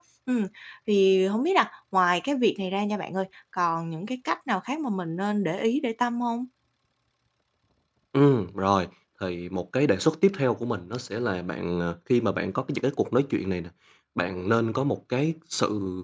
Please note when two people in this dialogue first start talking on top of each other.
none

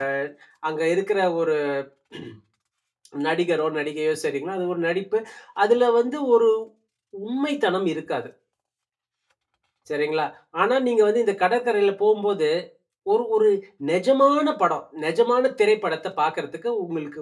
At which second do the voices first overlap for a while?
none

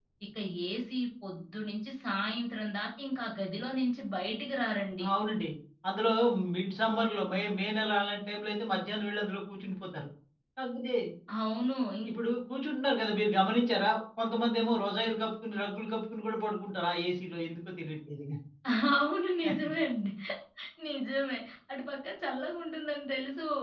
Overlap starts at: none

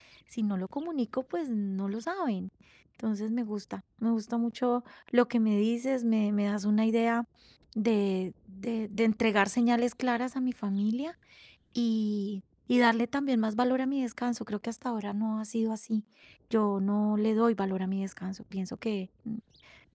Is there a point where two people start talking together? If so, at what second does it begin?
none

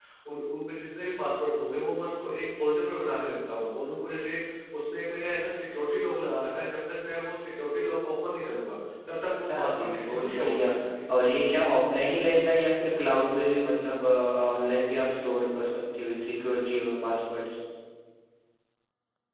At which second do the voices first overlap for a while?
9.5 s

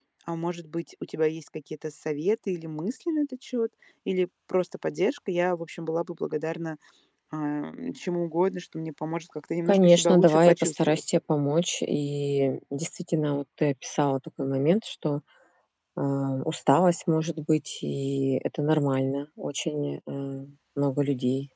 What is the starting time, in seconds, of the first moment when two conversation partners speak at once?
9.7 s

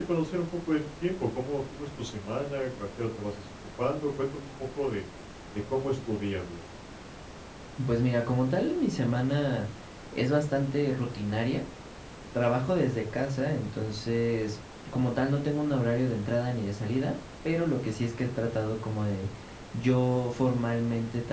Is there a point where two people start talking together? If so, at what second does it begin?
none

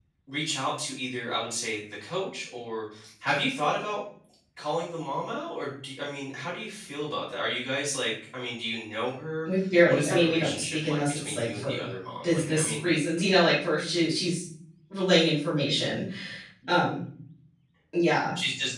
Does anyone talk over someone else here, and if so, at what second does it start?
9.4 s

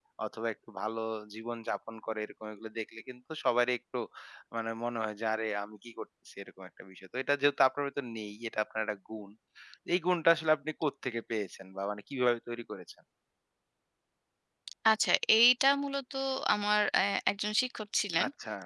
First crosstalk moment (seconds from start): none

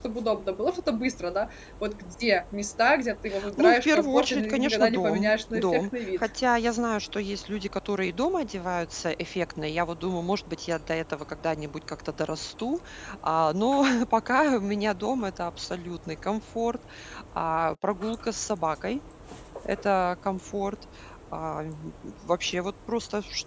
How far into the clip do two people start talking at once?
3.6 s

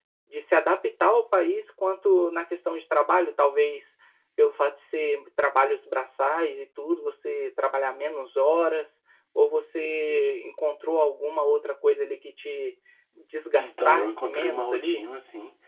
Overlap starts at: 13.6 s

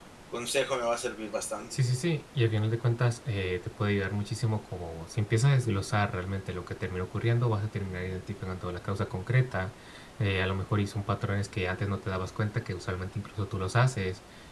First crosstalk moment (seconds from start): none

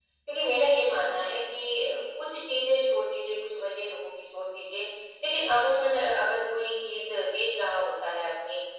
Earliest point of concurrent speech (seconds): none

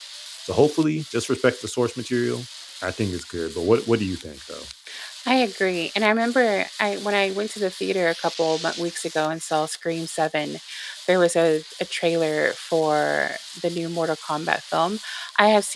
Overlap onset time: none

